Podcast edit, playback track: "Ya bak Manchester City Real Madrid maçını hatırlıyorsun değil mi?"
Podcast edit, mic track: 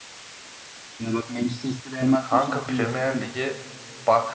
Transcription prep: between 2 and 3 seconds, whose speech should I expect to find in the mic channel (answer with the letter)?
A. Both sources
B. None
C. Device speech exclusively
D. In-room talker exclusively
A